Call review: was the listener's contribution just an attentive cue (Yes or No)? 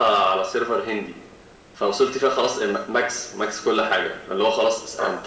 Yes